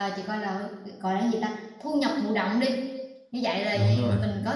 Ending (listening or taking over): listening